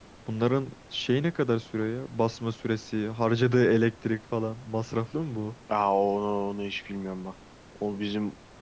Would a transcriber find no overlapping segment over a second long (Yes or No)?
Yes